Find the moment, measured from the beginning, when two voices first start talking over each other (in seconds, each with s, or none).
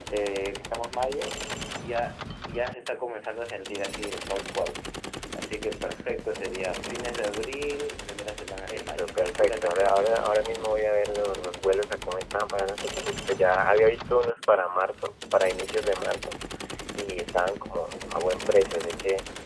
8.6 s